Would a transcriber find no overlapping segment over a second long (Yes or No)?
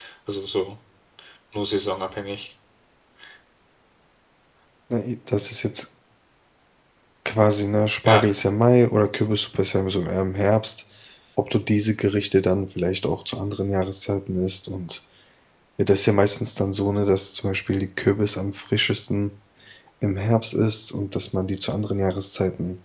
Yes